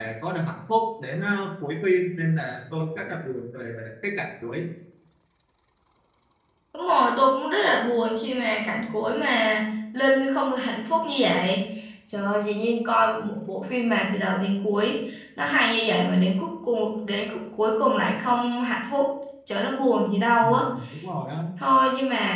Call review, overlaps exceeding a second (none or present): none